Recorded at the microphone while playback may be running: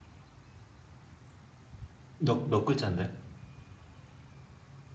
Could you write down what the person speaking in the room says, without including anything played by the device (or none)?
몇, 몇 글자인데?